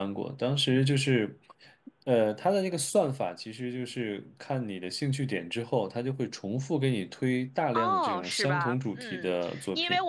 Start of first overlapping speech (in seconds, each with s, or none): 7.7 s